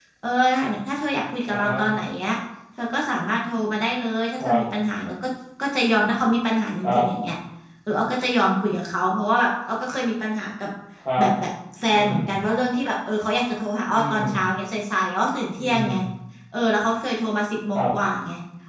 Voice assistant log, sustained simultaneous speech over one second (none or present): none